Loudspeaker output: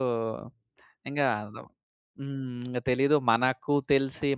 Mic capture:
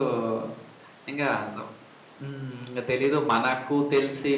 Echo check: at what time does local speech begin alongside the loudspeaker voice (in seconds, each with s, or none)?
none